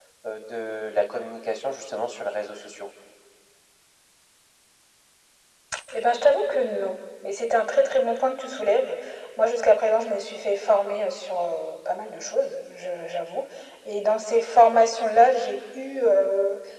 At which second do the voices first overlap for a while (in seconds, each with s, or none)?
none